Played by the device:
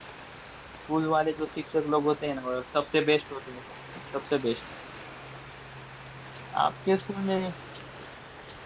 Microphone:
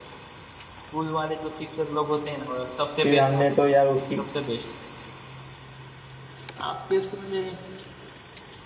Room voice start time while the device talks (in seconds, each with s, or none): 3.0 s